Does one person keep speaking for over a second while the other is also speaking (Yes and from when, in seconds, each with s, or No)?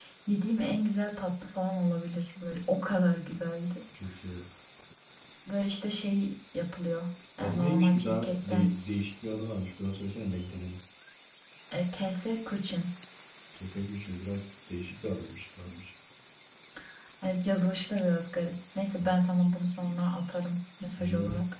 Yes, from 7.4 s